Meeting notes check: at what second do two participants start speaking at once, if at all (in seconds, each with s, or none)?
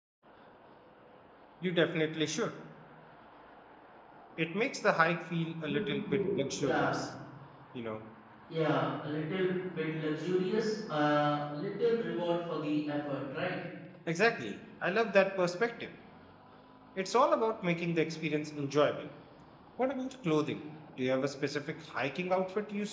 5.6 s